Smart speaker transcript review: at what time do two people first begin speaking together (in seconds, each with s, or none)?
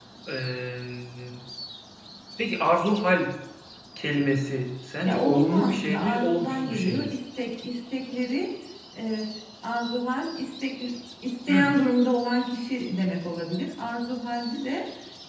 5.0 s